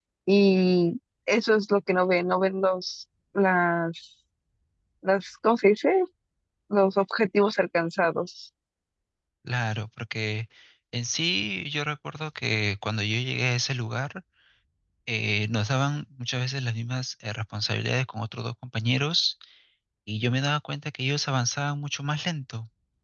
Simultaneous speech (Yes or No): No